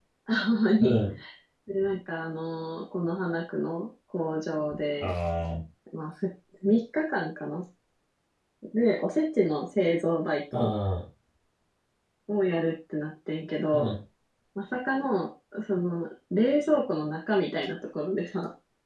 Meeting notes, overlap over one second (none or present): none